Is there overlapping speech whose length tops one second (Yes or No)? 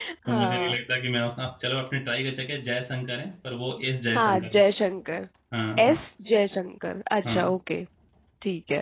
No